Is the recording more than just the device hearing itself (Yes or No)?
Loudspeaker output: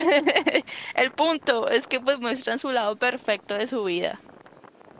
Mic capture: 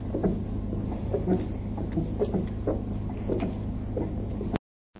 No